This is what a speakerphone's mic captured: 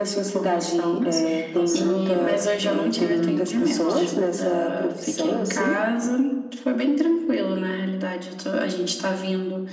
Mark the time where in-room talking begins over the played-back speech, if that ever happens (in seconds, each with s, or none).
1.0 s